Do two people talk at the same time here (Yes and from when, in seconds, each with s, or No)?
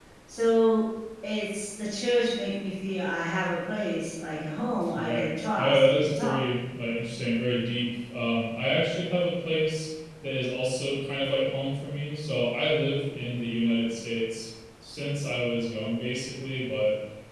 Yes, from 4.8 s